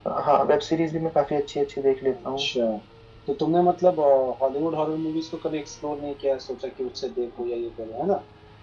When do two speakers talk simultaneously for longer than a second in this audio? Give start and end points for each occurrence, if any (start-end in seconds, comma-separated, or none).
none